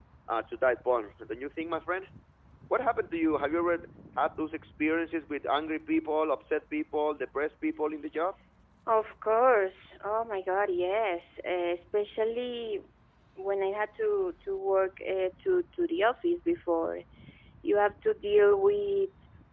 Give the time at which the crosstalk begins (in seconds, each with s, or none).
none